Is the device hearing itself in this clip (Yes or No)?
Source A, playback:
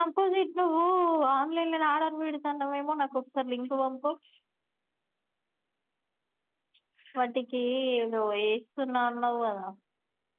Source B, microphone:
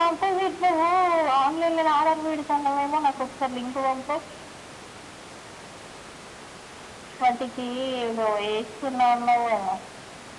Yes